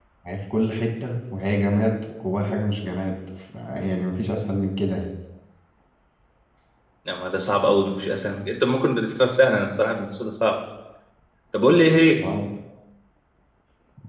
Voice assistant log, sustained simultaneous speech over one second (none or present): none